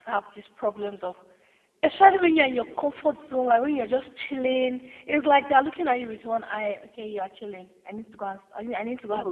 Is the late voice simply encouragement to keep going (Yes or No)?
No